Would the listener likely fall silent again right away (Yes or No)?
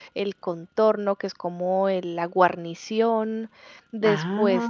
Yes